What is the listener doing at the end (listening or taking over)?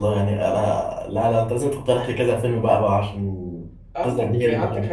taking over